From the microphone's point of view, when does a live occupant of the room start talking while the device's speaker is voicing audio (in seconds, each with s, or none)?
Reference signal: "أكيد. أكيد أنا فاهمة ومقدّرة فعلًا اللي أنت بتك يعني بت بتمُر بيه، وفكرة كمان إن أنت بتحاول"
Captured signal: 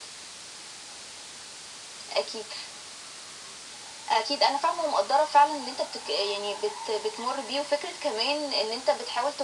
none